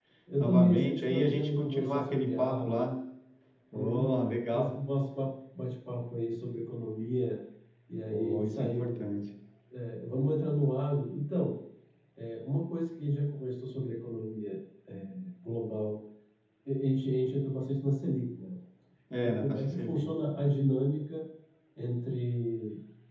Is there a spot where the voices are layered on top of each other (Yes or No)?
Yes